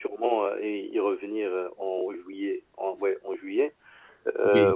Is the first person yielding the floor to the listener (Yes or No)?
No